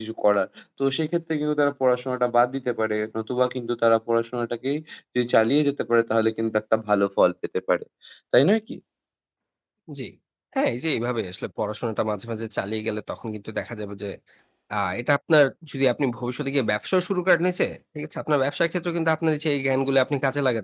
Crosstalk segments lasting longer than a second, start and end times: none

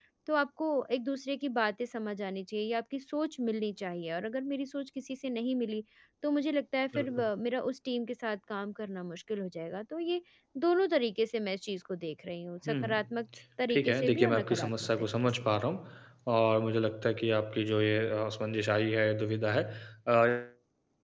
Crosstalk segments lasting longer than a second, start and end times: 13.7-15.4

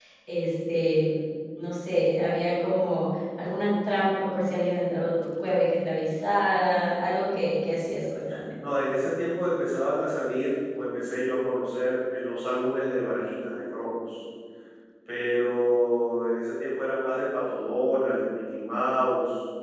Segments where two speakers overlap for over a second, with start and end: none

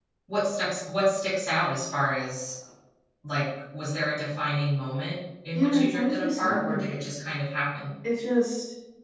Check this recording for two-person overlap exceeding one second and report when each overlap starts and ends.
5.5-6.9

